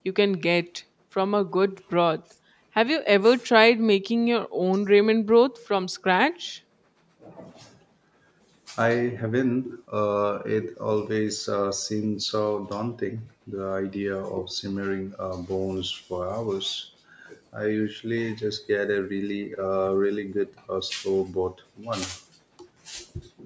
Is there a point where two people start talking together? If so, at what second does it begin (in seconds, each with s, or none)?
none